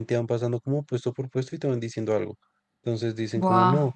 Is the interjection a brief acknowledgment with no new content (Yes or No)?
Yes